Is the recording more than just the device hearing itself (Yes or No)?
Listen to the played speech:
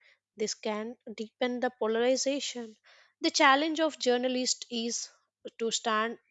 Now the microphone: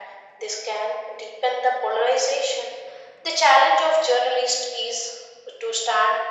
No